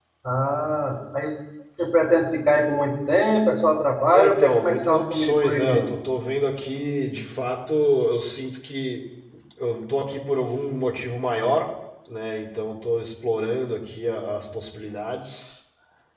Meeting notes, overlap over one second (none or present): present